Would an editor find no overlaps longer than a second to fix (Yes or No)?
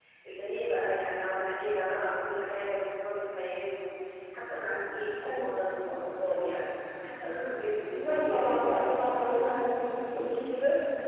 No